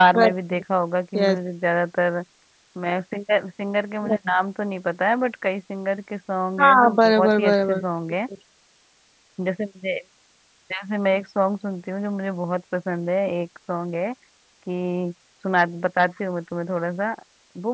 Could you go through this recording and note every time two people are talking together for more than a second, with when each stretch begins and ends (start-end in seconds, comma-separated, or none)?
6.6-7.8